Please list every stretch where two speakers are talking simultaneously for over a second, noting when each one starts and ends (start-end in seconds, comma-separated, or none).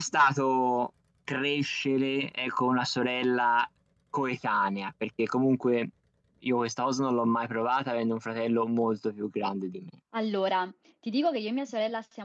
none